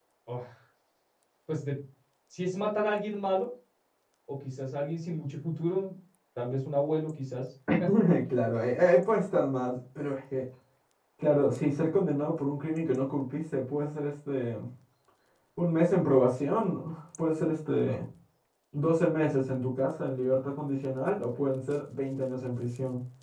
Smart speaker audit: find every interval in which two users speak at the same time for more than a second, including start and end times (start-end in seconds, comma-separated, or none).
none